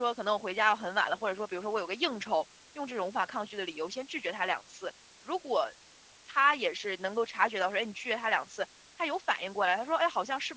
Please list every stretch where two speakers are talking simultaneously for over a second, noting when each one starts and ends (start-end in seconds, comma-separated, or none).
none